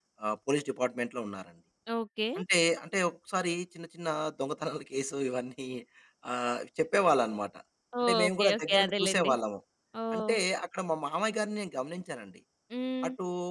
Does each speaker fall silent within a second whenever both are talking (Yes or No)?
No